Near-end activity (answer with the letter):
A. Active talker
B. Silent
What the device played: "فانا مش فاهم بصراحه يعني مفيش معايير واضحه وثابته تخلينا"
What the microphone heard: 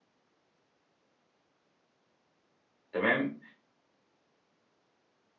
A